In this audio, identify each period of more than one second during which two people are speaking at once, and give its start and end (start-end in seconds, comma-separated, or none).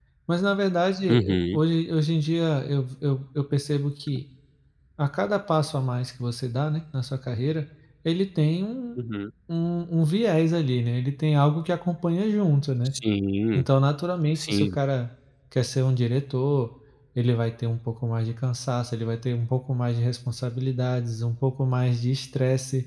none